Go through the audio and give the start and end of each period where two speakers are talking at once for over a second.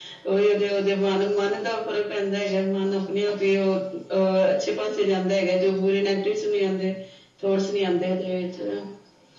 none

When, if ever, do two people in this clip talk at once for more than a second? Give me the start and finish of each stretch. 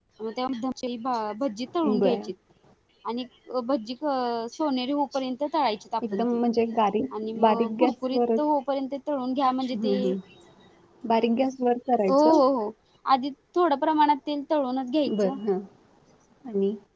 7.2-8.4

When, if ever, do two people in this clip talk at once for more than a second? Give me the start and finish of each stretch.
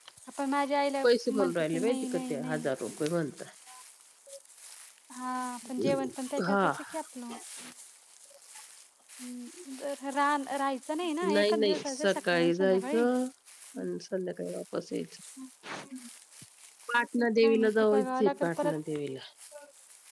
1.0-2.7, 11.3-13.0, 17.4-18.8

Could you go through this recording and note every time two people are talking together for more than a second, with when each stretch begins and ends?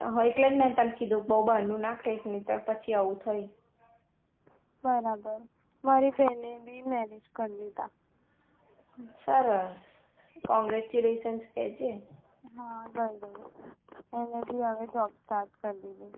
none

